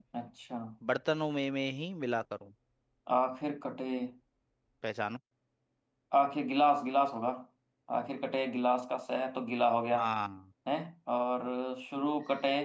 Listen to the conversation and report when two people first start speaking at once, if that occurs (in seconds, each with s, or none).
none